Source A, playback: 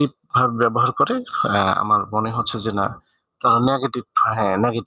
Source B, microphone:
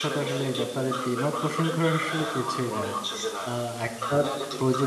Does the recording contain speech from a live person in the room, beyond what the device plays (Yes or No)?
Yes